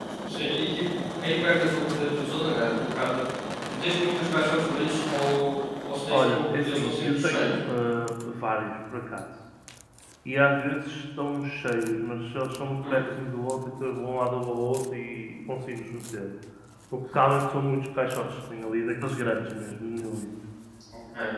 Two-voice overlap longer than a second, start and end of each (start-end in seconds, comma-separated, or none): 6.1-7.6